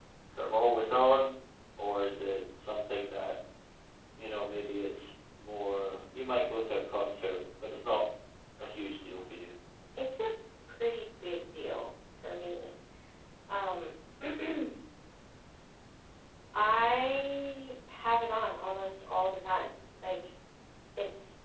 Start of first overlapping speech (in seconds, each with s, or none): none